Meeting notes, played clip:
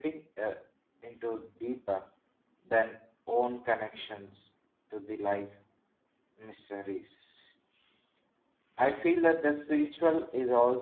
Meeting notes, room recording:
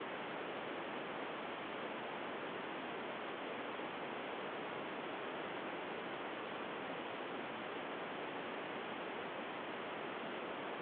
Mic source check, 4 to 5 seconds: neither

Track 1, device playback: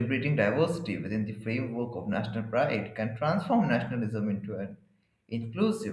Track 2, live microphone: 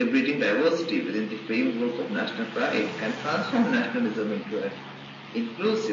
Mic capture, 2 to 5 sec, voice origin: echo only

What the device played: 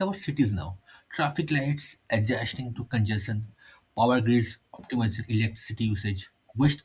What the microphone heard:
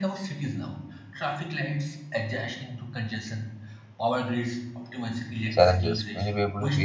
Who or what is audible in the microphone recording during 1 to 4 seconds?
echo only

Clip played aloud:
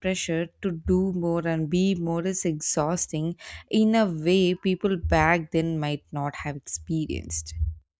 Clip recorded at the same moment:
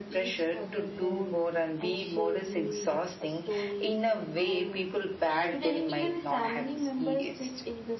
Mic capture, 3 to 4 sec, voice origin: both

